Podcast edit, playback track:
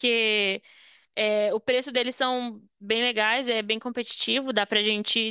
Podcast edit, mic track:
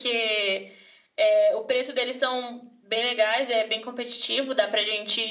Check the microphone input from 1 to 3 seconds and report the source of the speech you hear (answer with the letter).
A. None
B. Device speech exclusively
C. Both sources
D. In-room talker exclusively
B